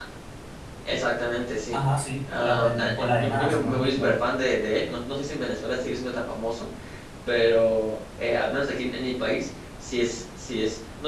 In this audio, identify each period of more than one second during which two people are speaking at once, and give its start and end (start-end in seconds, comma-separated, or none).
2.3-4.3